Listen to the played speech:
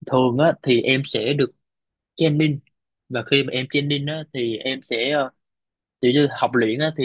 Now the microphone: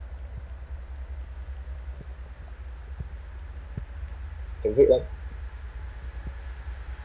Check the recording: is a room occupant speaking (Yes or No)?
Yes